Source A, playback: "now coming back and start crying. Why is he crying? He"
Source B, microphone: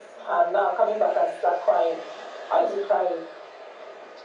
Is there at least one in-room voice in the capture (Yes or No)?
No